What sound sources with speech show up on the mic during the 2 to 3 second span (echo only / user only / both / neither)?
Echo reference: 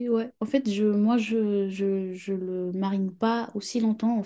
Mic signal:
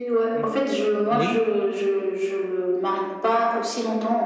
echo only